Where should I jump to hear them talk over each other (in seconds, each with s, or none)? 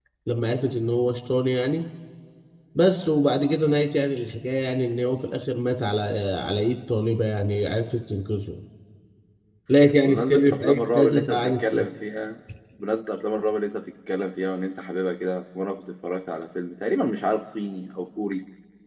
10.0 s